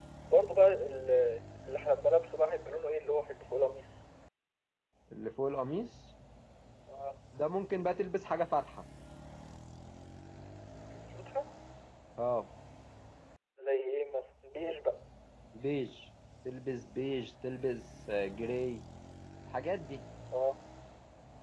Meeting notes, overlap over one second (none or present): none